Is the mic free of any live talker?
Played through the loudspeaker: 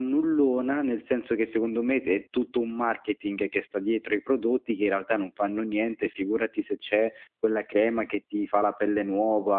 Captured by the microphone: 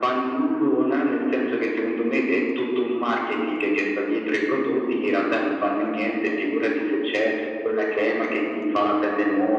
Yes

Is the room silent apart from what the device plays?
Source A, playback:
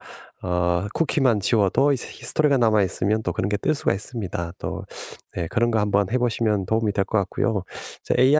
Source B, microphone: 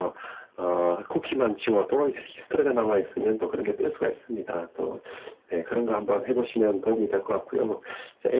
Yes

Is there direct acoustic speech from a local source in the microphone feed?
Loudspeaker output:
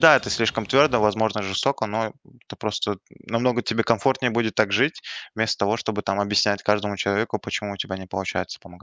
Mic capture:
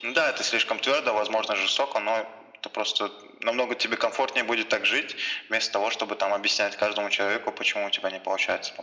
No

